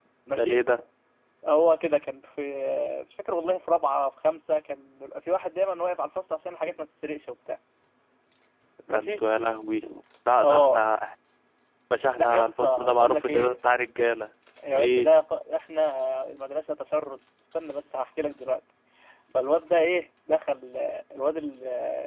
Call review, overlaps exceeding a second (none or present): present